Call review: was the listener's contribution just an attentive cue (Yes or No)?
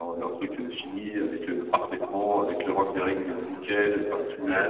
Yes